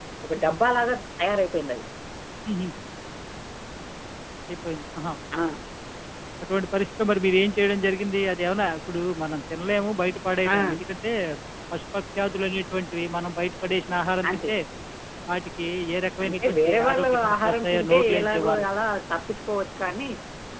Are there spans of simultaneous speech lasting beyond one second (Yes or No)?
Yes